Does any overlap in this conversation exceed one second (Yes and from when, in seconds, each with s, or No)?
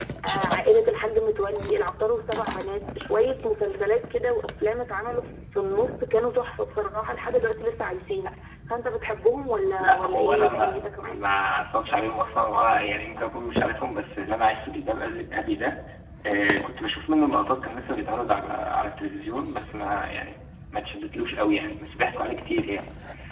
Yes, from 9.7 s